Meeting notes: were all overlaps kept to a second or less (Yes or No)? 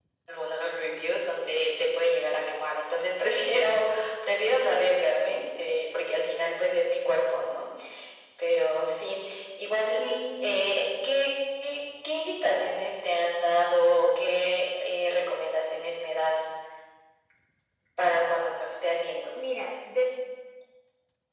Yes